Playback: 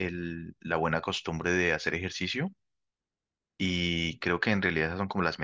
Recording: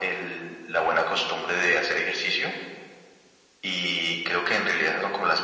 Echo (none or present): present